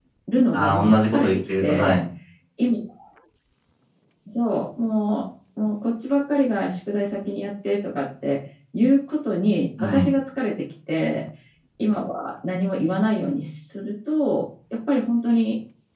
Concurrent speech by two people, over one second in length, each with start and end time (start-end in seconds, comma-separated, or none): 0.5-2.0